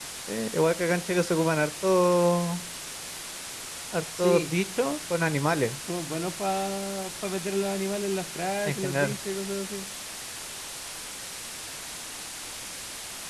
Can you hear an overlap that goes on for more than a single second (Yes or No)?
No